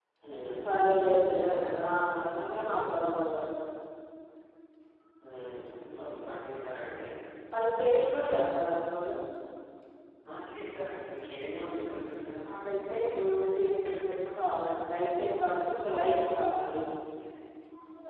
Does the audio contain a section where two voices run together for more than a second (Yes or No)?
Yes